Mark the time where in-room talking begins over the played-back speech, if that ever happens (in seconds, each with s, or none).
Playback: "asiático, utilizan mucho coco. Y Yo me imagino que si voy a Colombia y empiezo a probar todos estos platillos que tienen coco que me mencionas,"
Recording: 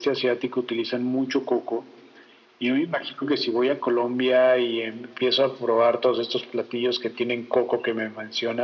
none